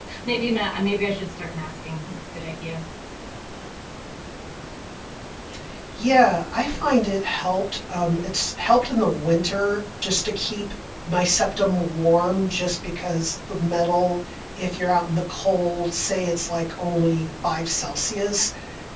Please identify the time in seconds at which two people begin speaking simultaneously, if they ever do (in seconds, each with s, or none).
none